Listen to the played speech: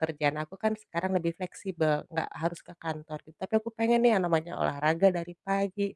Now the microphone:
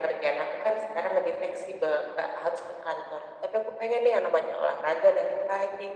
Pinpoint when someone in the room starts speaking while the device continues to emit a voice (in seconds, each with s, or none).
none